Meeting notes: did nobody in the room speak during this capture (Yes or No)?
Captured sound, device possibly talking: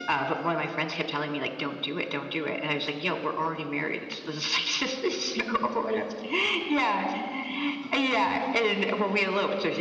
Yes